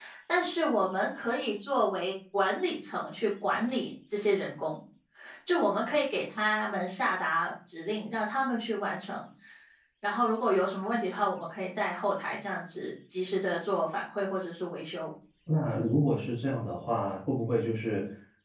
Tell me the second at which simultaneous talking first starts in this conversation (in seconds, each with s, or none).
none